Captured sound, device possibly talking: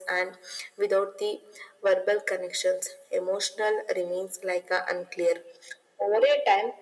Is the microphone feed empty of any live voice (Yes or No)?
Yes